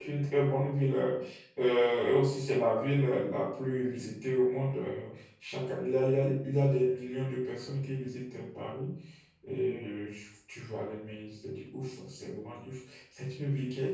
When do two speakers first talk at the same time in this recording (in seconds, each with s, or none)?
none